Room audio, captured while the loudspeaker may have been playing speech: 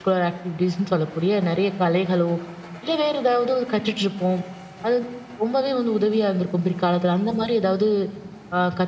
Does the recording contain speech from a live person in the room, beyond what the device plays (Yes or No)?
Yes